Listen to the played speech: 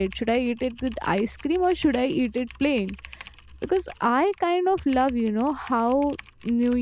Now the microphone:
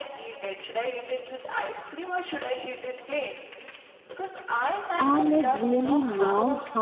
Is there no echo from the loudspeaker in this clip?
No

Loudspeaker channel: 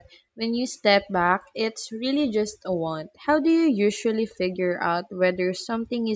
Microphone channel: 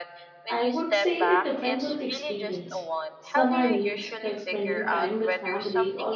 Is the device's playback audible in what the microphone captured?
Yes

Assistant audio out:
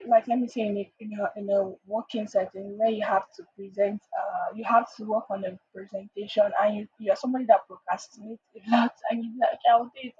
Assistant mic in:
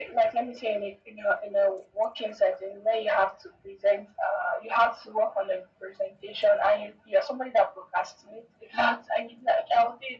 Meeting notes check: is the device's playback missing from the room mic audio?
No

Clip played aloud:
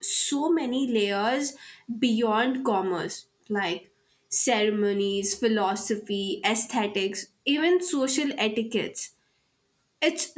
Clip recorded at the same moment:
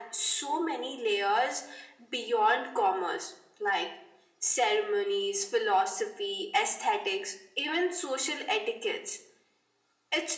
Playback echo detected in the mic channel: Yes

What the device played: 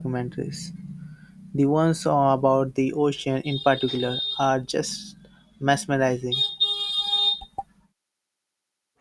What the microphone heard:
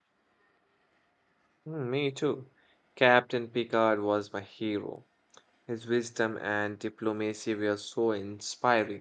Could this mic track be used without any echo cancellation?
Yes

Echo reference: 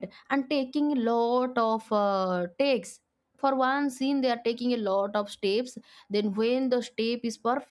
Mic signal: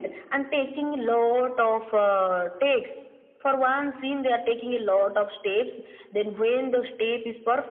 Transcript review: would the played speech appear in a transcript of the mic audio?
Yes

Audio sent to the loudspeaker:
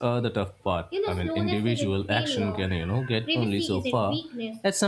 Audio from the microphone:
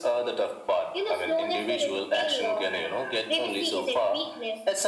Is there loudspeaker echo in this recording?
Yes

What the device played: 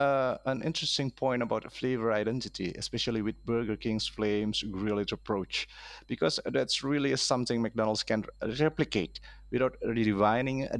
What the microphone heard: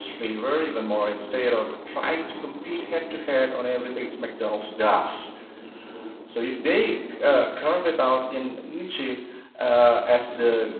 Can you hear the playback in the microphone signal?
No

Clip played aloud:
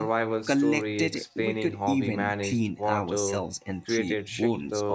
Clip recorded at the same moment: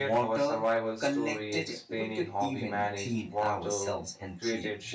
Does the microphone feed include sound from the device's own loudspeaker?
Yes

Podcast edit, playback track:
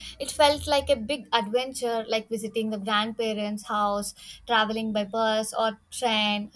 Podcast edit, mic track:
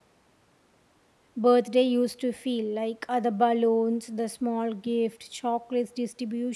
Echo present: No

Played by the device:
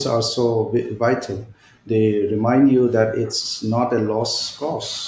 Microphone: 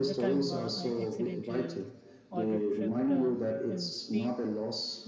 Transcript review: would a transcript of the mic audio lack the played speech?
No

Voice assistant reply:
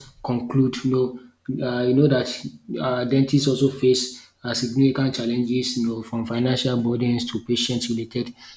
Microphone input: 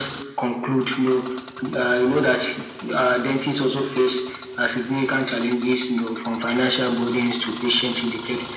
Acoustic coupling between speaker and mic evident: Yes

